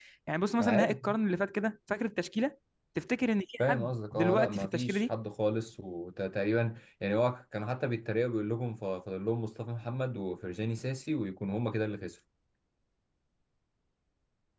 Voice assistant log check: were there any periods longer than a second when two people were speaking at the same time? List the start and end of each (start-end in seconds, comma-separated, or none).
3.6-5.1